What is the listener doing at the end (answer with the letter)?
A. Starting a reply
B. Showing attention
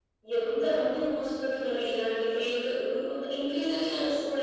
B